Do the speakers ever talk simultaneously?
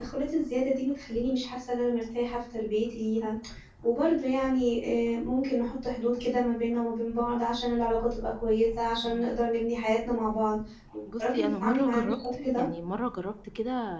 Yes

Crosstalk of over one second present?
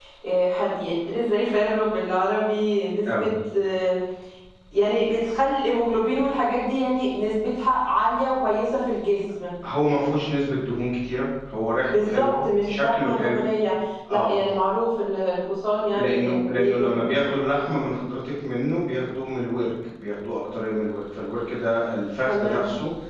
Yes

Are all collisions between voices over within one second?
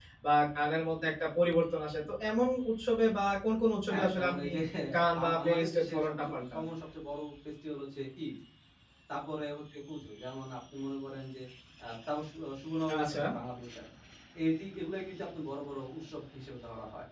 No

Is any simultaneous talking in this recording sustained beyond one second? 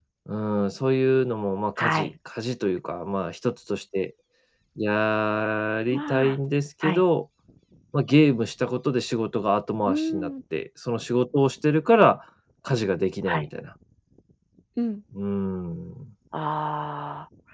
No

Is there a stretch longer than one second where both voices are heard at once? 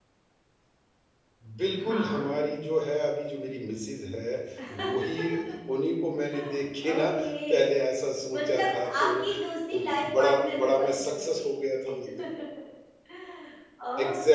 Yes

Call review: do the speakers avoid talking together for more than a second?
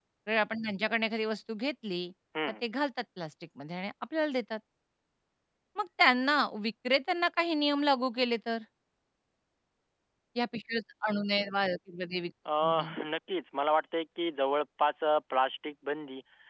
Yes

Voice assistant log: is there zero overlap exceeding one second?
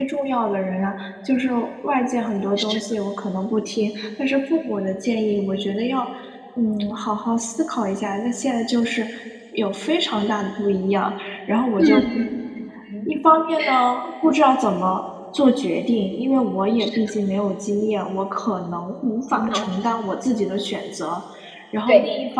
Yes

